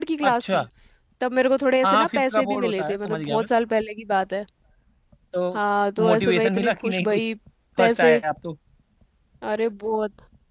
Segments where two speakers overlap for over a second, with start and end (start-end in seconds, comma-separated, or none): 1.8-3.5, 6.0-7.3